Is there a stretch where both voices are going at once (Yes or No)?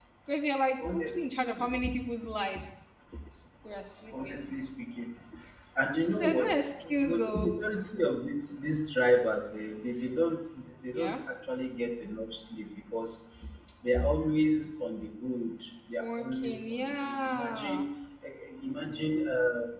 Yes